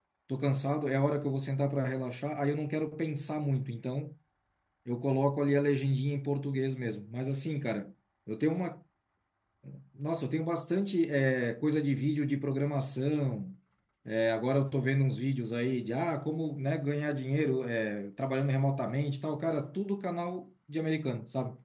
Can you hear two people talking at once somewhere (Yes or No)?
No